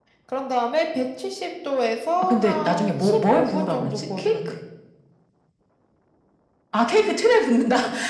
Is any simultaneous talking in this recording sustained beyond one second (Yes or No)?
Yes